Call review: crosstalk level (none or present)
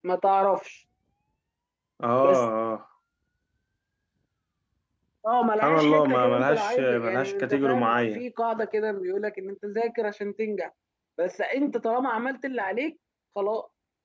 present